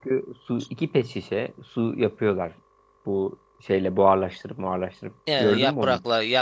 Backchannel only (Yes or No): No